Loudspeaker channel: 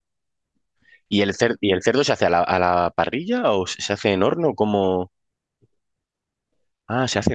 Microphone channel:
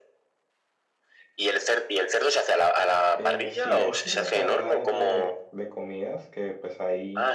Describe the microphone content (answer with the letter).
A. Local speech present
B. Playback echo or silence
A